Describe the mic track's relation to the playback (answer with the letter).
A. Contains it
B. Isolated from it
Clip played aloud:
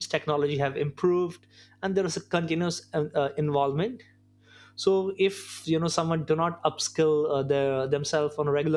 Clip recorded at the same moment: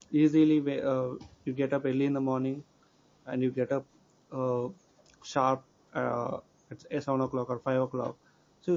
B